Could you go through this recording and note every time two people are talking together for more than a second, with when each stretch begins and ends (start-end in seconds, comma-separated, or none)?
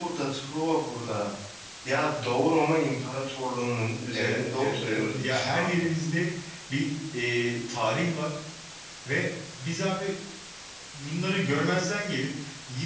4.1-5.9